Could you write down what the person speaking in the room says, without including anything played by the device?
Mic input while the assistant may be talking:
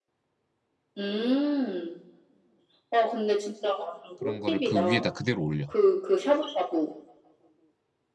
그런 거를 그 위에다 그대로 올려

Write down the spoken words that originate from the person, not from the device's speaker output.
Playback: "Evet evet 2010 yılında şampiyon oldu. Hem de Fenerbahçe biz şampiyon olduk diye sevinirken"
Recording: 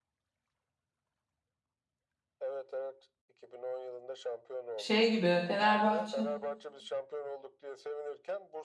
Şey gibi Fenerbahçe.

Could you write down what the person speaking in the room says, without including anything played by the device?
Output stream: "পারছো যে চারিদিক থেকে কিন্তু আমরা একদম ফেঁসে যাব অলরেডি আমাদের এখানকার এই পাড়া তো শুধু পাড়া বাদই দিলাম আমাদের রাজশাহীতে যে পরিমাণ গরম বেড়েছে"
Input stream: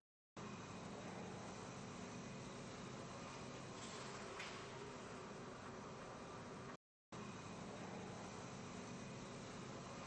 none

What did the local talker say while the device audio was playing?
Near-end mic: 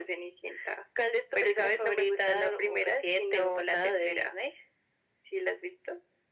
none

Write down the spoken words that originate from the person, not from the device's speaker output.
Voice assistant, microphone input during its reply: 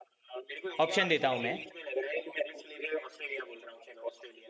ऑप्शन देता हूँ मैं

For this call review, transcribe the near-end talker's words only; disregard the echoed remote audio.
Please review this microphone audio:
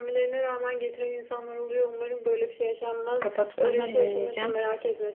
kapattıktan sonra dinleyeceğim.

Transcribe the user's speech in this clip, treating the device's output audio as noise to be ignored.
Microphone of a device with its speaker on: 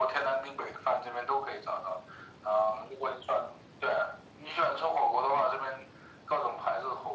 none

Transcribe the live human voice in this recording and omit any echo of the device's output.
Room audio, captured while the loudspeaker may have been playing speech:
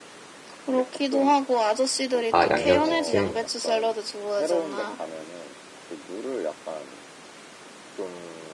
아, 양념치킨.

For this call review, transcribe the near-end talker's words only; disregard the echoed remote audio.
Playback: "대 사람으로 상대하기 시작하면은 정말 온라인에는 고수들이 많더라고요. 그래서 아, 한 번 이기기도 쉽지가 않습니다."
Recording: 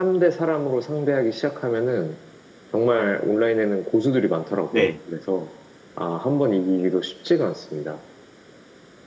네.

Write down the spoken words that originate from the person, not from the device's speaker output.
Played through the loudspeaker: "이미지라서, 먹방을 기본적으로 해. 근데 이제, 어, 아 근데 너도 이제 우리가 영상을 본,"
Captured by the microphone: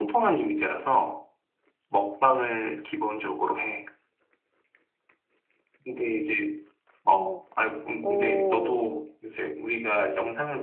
오, 오,

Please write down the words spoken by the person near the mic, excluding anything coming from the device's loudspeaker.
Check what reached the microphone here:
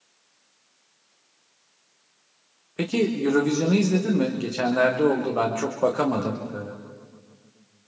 peki Eurovision'u izledin mi? Geçenlerde oldu ben çok bakamadım. E,

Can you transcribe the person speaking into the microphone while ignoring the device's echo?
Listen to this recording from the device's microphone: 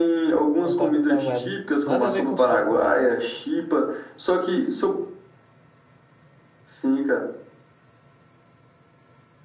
uma torta salgada. Nada a ver com sopa,

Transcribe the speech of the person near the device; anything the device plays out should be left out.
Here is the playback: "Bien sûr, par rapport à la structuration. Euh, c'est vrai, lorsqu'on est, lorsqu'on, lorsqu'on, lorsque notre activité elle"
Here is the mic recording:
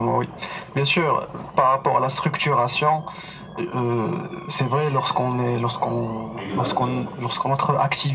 Exactement.

